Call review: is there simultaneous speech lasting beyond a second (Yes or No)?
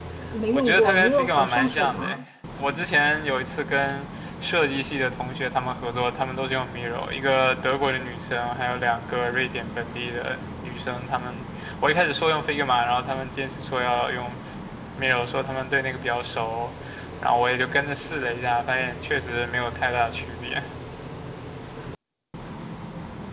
Yes